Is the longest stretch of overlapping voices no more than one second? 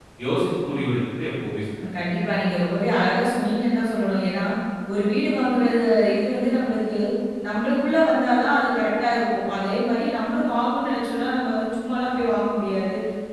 Yes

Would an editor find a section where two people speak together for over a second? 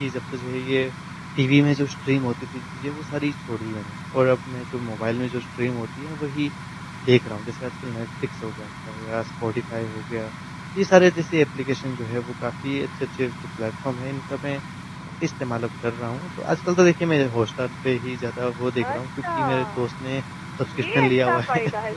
Yes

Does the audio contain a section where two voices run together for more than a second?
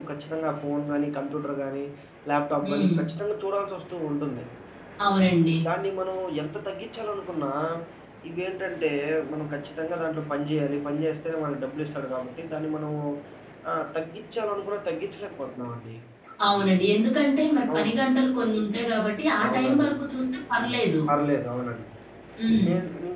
No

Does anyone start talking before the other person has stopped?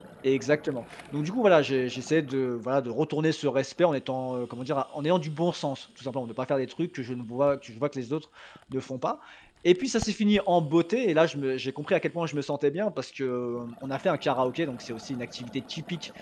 No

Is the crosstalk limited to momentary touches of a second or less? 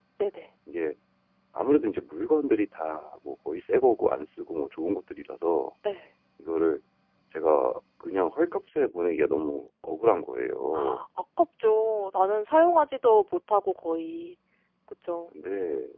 Yes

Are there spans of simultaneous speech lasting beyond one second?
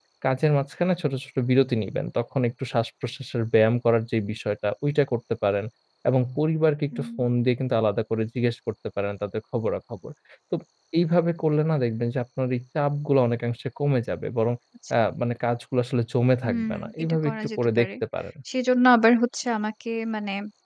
Yes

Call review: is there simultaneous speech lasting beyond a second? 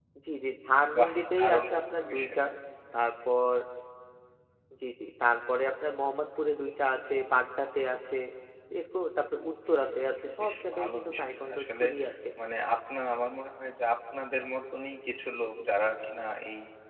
Yes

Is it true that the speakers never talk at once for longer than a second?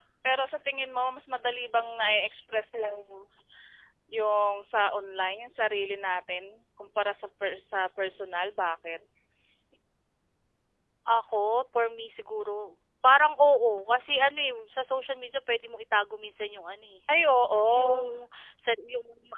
Yes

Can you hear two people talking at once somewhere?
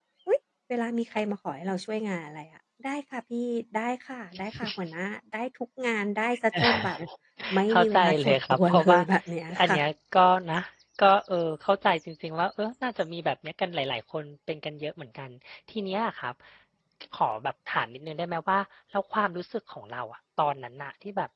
Yes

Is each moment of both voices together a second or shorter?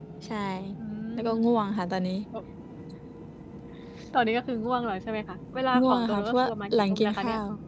No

